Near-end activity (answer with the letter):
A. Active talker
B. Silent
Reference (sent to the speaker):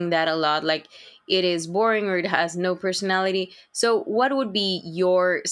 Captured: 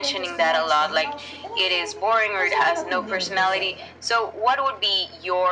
A